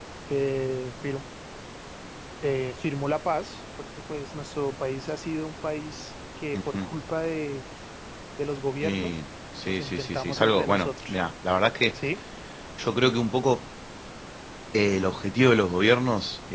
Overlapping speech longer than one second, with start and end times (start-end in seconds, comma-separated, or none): 9.7-11.2